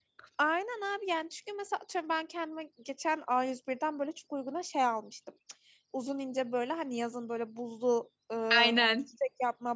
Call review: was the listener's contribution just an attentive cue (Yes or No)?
Yes